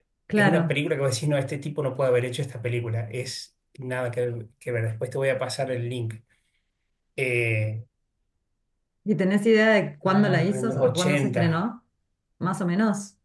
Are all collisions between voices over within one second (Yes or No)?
No